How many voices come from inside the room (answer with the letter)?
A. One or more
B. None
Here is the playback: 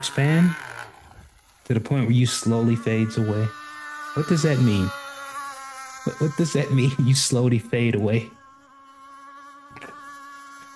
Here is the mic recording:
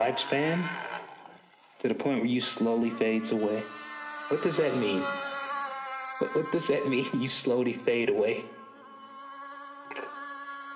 A